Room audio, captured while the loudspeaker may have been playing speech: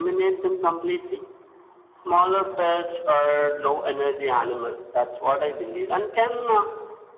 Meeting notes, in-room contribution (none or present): none